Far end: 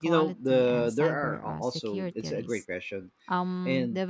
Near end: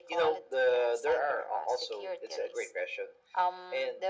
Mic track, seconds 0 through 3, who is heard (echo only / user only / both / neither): echo only